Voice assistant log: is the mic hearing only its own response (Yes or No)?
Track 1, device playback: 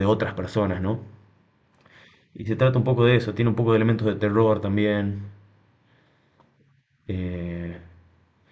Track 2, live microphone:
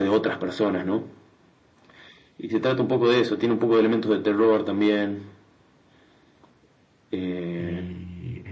No